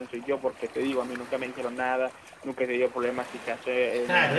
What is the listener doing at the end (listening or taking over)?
taking over